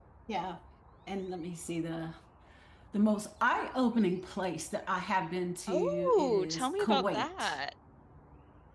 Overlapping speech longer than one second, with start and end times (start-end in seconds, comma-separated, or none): 5.7-7.6